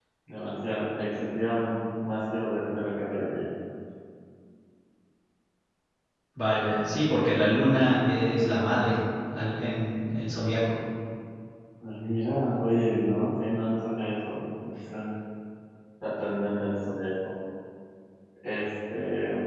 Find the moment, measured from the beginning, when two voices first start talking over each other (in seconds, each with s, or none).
none